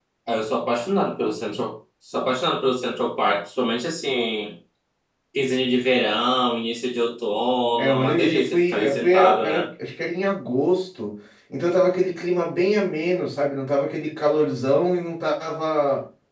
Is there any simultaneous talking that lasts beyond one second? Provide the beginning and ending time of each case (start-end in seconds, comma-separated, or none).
7.8-9.7